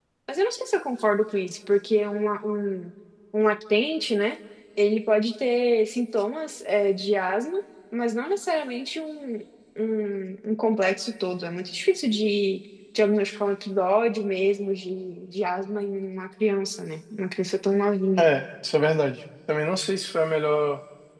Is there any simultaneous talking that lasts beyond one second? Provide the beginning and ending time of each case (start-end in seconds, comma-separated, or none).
none